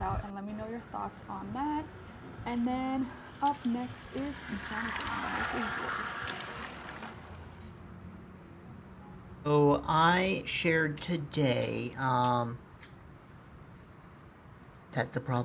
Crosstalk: none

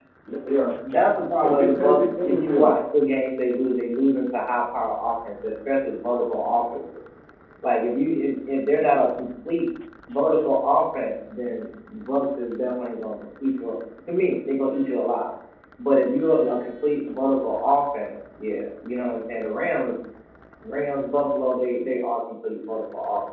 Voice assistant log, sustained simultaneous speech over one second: present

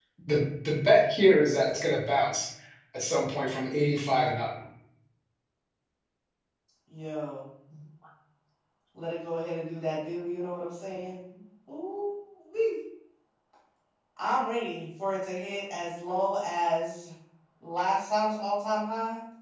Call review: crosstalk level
none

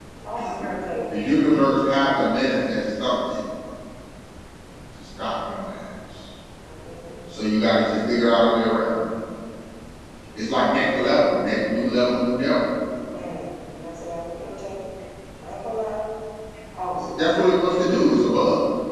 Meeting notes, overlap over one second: none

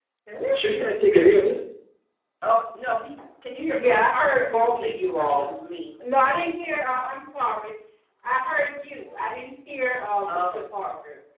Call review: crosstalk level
present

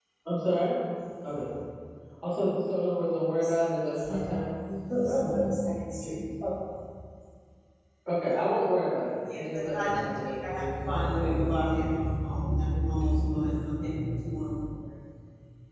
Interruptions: present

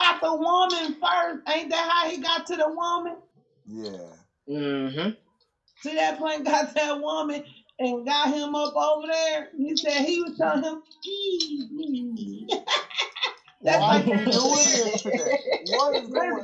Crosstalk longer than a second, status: present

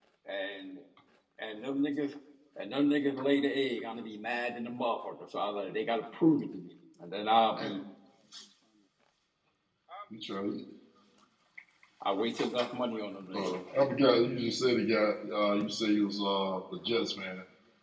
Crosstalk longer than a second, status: none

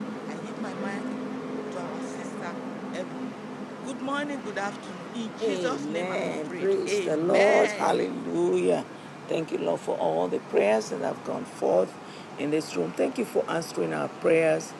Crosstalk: present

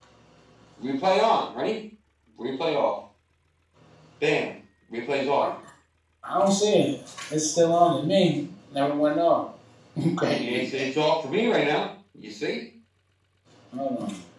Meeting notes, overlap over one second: none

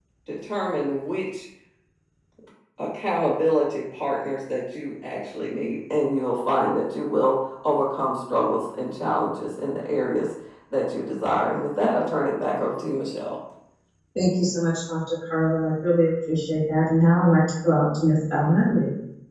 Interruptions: none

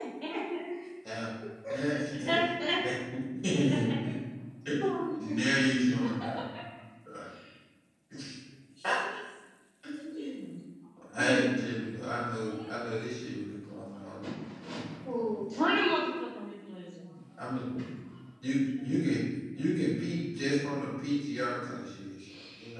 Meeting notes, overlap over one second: none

